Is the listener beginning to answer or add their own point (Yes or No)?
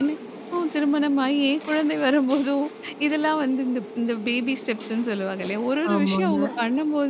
No